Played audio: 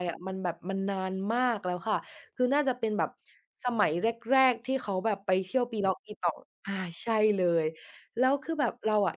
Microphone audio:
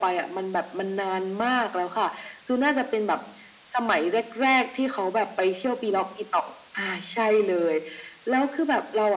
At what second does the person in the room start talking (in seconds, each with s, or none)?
none